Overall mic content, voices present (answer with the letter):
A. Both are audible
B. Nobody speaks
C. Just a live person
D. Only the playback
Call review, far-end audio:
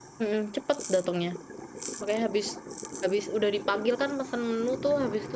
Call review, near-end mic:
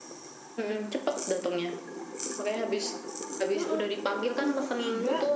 A